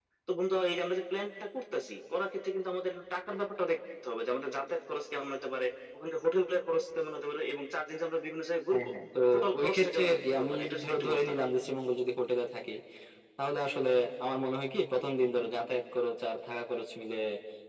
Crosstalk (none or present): present